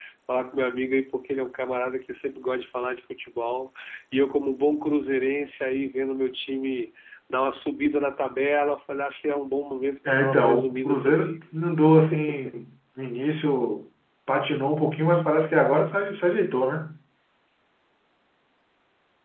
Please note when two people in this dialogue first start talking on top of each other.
10.1 s

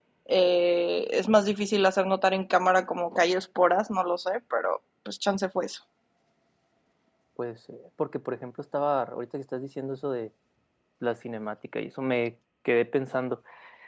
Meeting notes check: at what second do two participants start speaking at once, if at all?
none

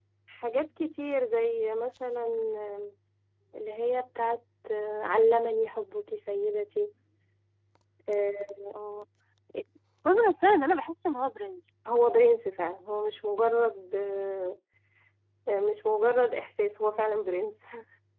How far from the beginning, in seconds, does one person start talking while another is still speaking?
none

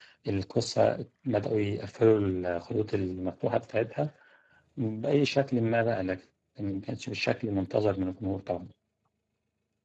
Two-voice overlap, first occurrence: none

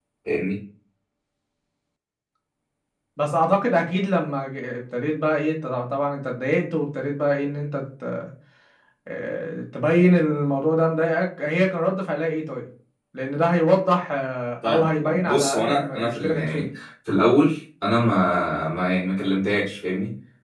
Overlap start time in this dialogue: 14.6 s

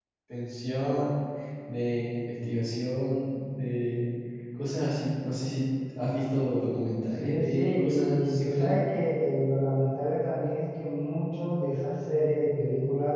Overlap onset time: 7.2 s

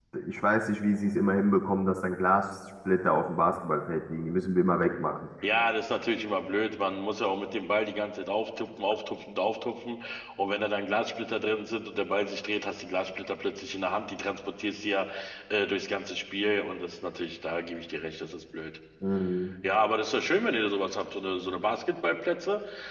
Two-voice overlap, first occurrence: none

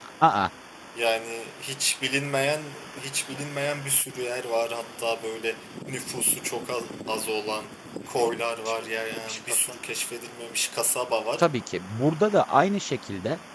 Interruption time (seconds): none

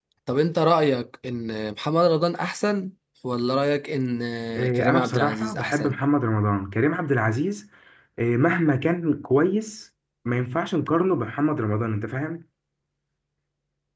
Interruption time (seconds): 4.7 s

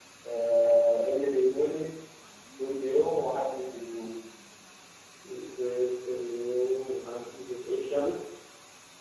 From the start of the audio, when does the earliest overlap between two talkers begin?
none

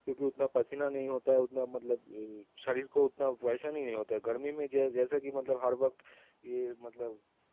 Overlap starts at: none

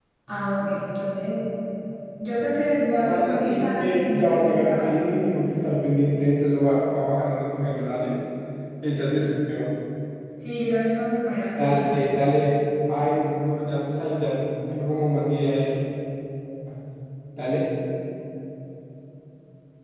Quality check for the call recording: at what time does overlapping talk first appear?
3.0 s

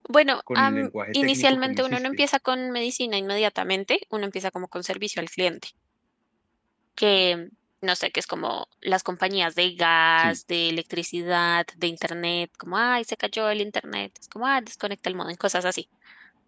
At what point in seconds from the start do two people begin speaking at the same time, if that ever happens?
0.6 s

